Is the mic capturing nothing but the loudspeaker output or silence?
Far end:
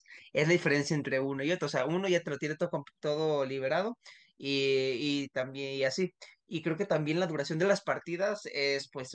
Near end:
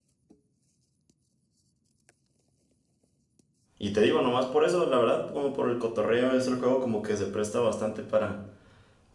No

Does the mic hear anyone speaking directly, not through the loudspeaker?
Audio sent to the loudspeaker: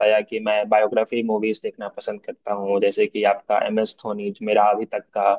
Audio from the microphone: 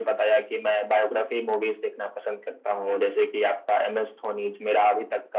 No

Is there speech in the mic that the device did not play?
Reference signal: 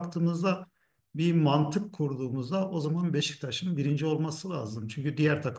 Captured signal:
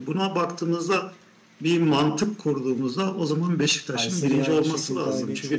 Yes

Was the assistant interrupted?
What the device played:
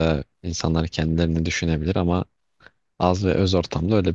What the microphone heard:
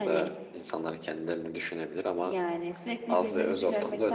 Yes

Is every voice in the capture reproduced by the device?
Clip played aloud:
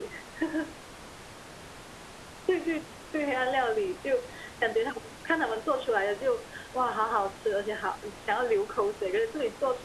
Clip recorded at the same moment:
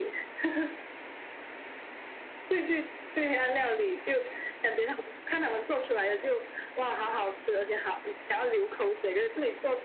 Yes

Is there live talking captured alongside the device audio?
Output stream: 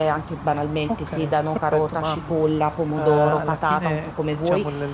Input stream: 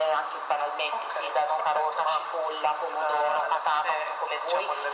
No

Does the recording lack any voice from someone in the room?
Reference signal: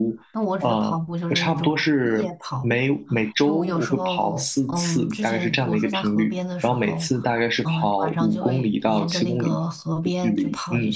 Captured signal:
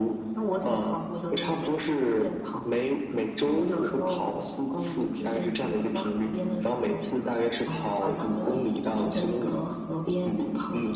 Yes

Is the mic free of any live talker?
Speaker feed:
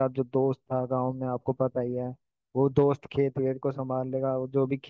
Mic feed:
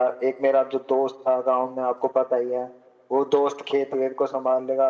Yes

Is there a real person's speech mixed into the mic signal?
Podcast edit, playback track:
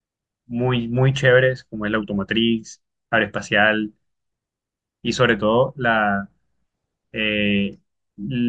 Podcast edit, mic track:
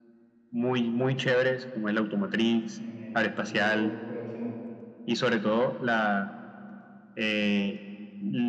Yes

